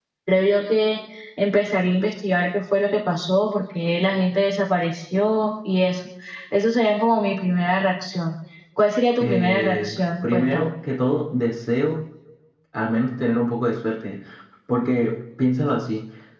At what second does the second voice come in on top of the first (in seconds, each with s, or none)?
9.2 s